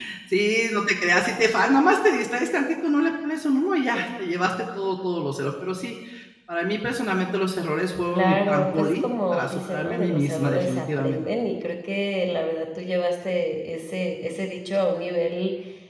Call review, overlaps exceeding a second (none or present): present